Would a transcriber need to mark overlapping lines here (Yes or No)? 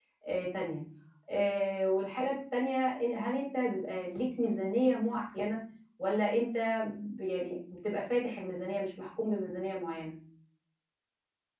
No